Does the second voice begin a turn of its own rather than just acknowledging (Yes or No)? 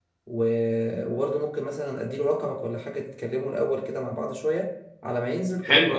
Yes